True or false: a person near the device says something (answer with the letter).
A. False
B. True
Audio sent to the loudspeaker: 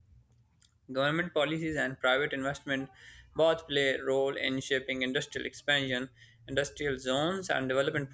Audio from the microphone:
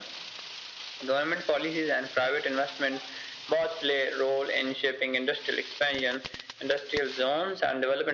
A